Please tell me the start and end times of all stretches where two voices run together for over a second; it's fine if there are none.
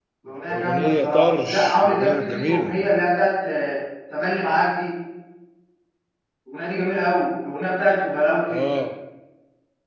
0.5-2.8

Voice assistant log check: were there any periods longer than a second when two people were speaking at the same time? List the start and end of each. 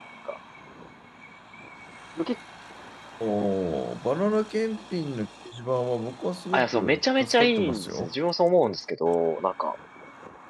6.5-8.1

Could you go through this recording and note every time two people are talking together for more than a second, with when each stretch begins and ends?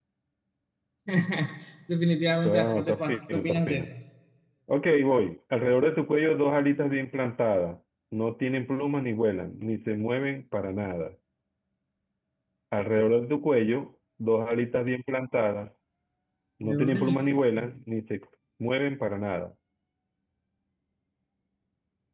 2.5-3.9

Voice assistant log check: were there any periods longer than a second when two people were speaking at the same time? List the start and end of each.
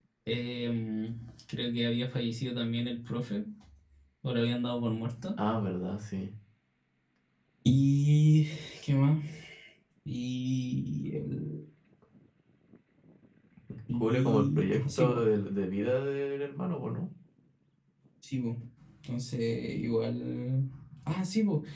13.9-15.2

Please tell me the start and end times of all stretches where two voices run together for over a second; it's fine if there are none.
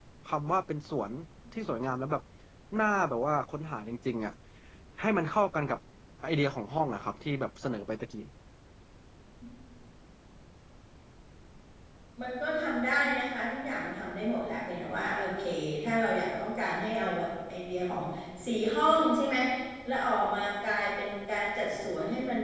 none

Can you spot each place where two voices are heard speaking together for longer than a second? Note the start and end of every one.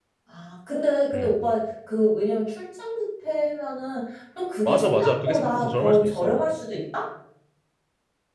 4.7-6.4

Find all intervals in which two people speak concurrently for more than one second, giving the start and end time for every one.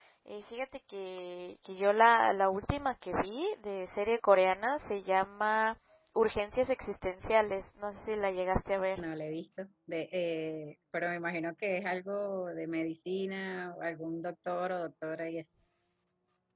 none

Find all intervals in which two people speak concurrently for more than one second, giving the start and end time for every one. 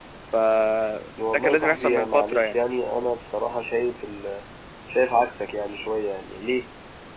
1.3-2.6

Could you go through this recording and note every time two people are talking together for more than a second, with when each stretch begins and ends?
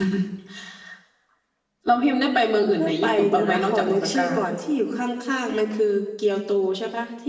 2.8-4.3

